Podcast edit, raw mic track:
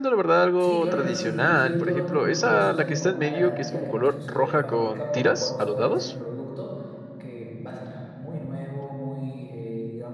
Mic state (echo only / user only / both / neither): both